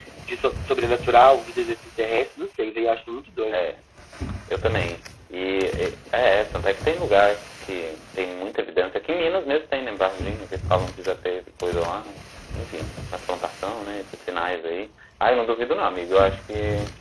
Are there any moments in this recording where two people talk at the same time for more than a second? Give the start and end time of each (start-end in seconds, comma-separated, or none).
none